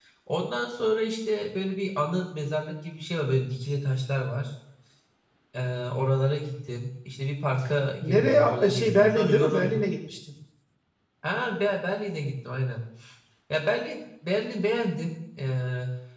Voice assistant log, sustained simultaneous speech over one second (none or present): present